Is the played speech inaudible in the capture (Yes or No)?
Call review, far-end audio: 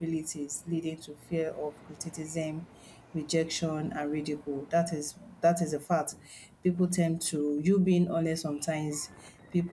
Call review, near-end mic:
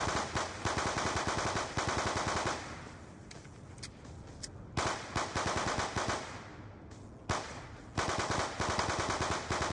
Yes